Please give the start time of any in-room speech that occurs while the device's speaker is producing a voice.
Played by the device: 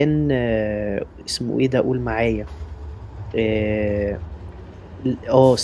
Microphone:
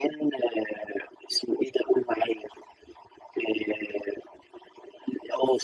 none

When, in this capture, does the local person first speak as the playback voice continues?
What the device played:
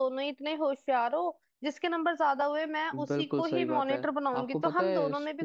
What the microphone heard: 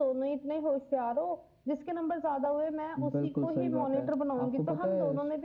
none

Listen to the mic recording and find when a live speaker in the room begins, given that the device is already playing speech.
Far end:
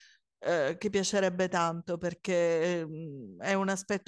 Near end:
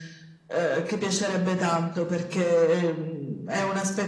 none

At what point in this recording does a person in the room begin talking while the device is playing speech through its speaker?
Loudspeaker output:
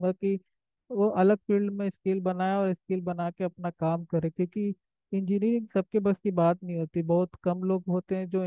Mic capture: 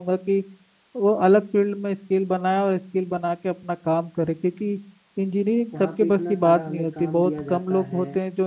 5.7 s

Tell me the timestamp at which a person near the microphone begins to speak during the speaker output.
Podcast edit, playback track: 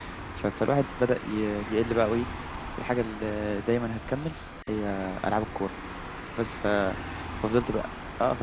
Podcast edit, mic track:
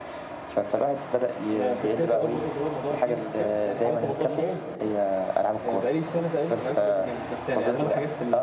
1.5 s

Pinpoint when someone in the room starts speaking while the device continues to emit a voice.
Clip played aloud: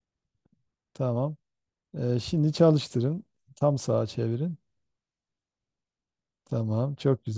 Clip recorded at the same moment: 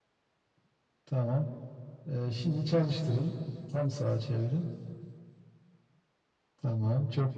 none

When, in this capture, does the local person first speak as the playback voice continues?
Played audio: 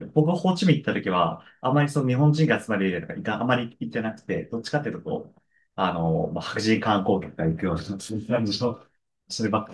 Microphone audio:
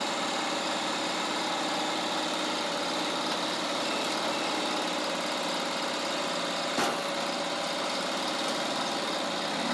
none

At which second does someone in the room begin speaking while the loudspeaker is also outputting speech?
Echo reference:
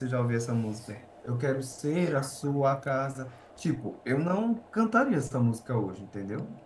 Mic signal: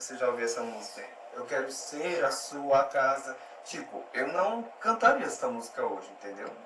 none

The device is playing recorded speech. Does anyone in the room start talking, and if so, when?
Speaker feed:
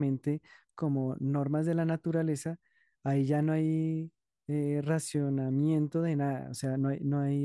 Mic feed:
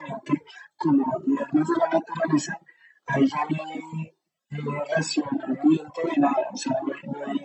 none

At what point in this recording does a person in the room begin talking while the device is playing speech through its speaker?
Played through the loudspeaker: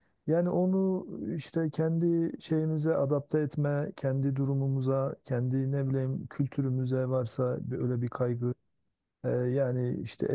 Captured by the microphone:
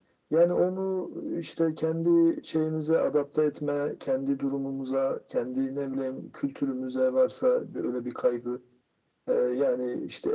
none

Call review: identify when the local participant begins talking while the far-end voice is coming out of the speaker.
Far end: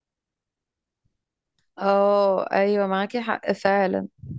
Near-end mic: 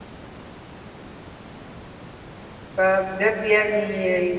2.8 s

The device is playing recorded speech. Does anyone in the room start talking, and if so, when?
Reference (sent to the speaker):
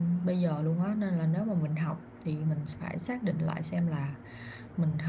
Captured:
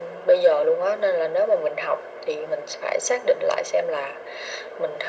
none

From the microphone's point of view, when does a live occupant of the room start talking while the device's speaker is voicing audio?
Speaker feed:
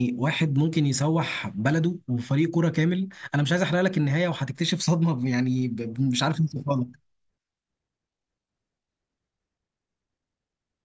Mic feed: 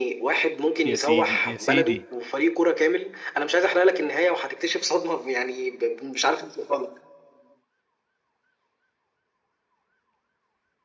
0.8 s

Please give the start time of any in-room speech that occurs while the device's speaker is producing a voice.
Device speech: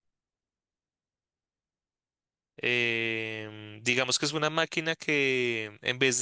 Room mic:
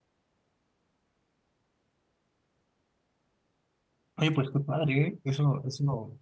4.2 s

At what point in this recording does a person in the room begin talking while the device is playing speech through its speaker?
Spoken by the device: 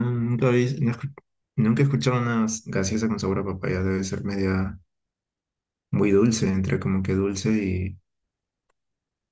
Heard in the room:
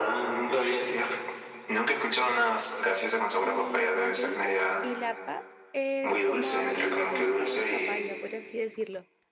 3.4 s

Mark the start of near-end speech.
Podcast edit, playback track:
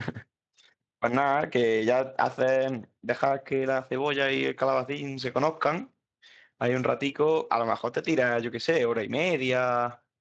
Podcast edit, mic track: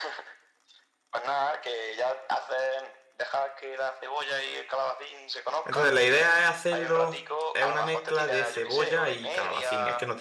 5.6 s

